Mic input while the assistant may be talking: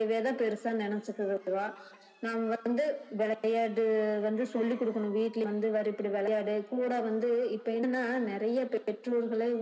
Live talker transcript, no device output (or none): none